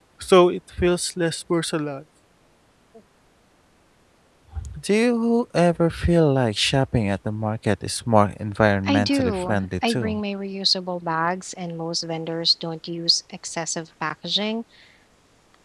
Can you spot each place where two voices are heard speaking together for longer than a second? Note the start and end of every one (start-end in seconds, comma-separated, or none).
8.8-10.2